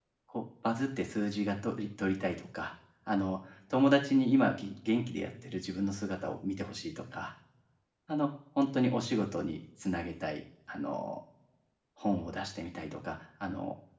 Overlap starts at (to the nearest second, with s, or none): none